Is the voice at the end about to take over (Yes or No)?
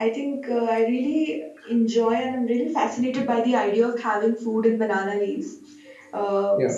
No